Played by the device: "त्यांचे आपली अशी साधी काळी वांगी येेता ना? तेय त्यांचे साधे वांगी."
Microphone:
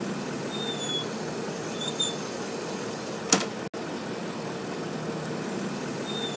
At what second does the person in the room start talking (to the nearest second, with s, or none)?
none